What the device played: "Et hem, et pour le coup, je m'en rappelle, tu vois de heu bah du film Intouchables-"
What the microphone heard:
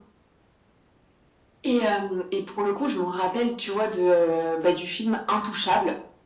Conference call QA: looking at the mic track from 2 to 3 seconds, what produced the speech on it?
echo only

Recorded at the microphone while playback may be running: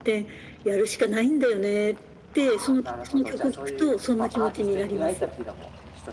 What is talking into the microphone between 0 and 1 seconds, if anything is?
echo only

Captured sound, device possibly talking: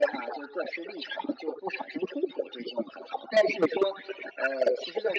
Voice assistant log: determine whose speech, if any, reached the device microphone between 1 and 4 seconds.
echo only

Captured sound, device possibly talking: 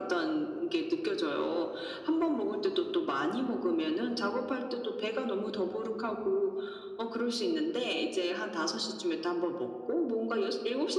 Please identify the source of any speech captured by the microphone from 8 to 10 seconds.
echo only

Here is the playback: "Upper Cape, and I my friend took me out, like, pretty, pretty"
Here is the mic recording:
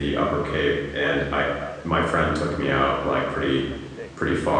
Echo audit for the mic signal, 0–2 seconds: both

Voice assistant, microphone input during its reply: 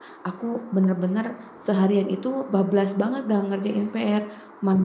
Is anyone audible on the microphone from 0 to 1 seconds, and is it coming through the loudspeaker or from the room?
user only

